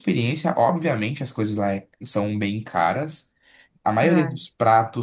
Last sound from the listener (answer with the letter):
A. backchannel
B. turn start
A